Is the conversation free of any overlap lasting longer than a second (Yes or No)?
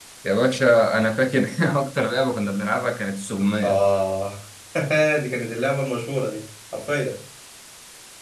Yes